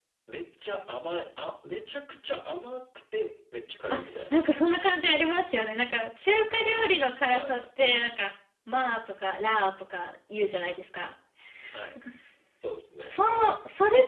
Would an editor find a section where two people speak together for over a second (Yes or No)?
No